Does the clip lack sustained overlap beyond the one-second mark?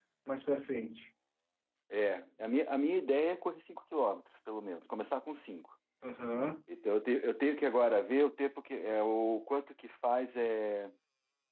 Yes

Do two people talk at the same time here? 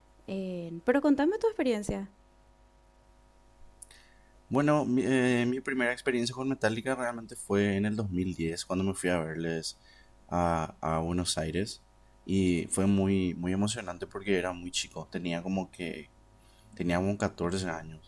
No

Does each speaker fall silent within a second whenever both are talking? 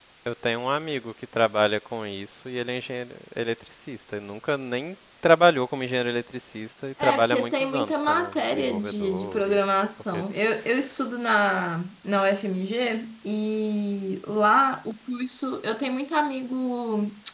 No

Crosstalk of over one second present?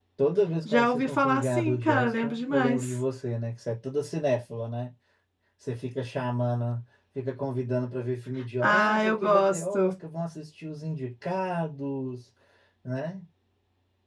Yes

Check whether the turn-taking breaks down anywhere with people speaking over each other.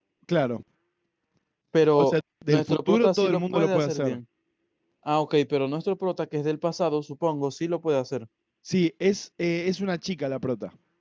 Yes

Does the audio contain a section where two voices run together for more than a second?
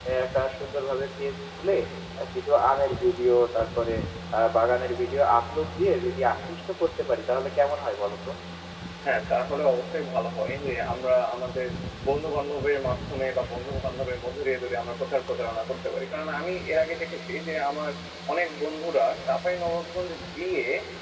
No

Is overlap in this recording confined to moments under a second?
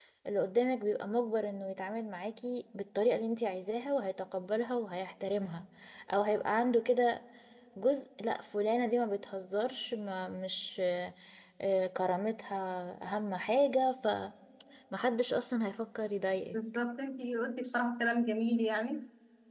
Yes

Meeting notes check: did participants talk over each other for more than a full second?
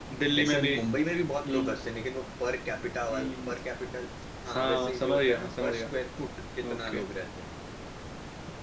Yes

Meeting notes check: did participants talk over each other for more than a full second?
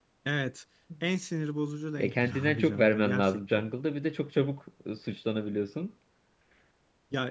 Yes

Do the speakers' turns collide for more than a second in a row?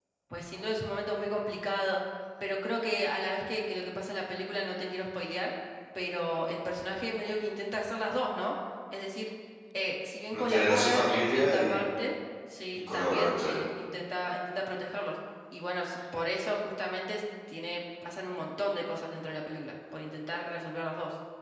Yes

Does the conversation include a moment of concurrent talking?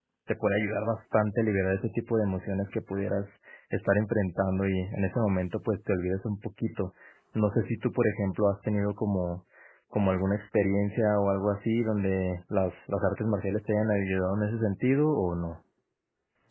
No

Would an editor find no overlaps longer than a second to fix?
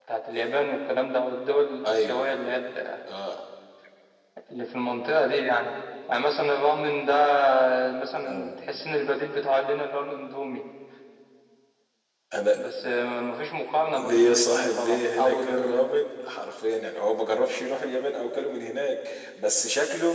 No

